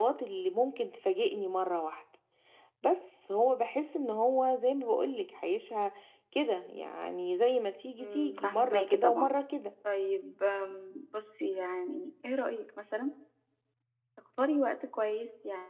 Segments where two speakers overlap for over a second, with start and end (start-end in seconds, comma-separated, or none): 8.0-9.3